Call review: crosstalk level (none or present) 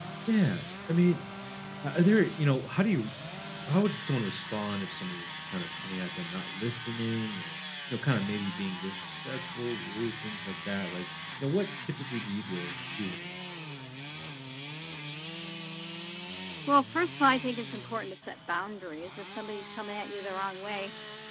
none